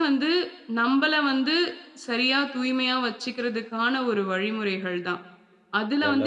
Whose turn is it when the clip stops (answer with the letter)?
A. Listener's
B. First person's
B